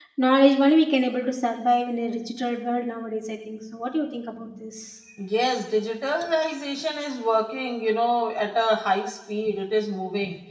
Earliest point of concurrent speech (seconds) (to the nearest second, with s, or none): none